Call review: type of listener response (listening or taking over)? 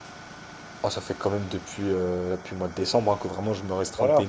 taking over